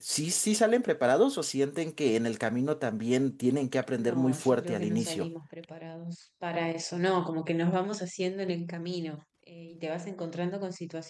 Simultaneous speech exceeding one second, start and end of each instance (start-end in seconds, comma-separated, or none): 3.9-5.3